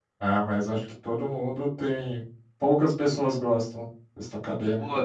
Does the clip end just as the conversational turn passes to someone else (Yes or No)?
Yes